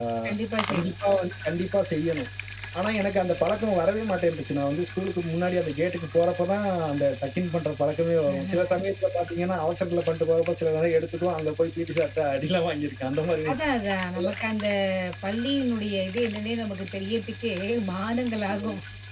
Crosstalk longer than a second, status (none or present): none